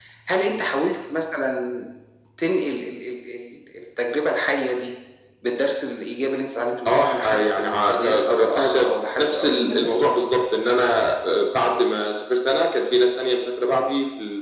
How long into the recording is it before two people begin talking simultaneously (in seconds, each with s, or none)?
6.8 s